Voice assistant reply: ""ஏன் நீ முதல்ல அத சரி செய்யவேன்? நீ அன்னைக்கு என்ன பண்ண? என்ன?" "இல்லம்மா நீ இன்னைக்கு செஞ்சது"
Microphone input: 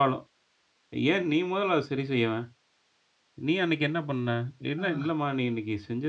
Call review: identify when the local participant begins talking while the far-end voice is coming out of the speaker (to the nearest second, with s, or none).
5 s